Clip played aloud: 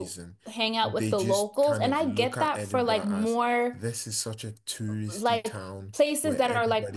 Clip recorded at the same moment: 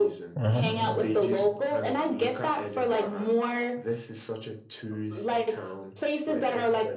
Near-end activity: present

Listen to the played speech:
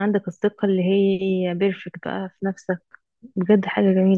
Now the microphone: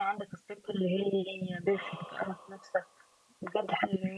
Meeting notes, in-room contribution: present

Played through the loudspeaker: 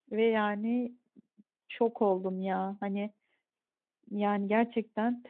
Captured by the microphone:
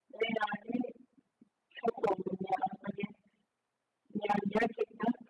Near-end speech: none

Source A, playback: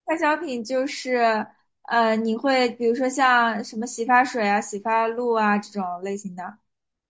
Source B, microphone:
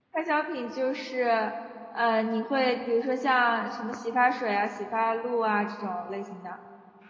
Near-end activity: none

